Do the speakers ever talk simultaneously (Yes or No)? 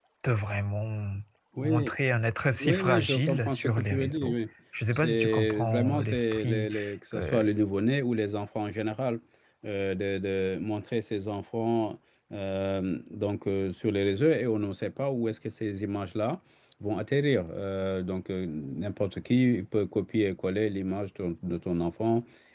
Yes